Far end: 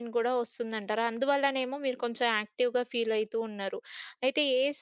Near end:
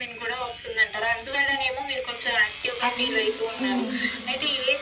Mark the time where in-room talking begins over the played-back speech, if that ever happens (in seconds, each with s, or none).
2.9 s